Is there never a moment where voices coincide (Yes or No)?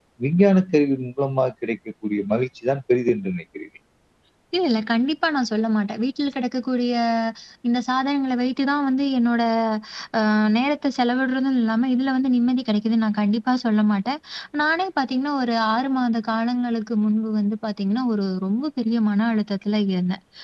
Yes